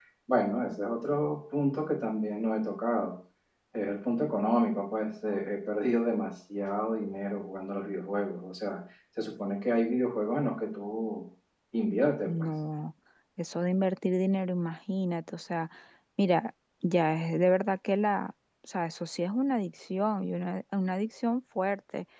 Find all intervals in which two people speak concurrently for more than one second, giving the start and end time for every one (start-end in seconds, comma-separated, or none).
none